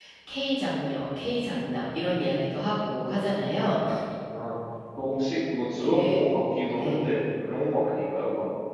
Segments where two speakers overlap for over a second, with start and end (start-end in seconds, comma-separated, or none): none